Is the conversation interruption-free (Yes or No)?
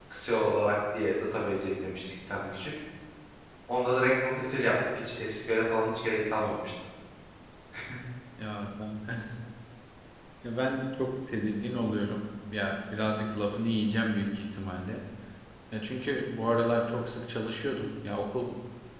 Yes